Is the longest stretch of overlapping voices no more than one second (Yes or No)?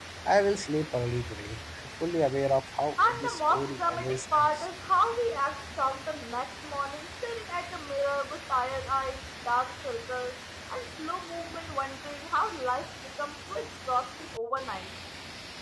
No